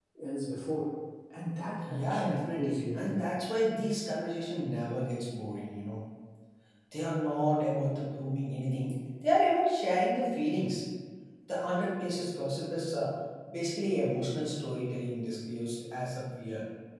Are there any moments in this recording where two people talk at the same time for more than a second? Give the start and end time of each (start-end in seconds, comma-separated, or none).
1.9-3.1